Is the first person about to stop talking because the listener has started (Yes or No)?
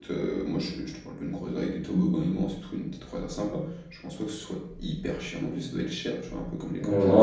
Yes